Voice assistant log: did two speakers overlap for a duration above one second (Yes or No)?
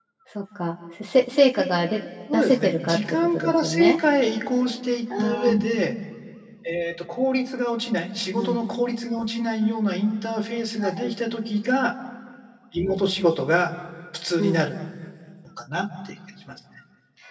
Yes